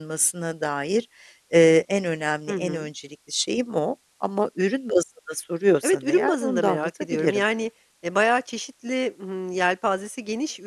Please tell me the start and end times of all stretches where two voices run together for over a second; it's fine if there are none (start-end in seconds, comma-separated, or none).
5.8-7.4